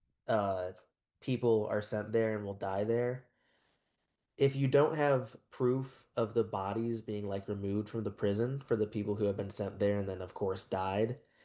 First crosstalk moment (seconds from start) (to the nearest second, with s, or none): none